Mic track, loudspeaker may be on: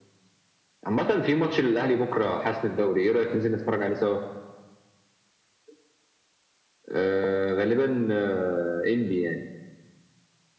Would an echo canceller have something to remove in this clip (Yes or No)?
Yes